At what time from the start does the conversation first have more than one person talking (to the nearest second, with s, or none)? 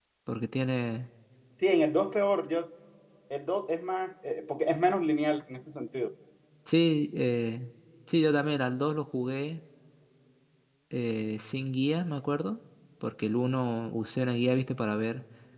none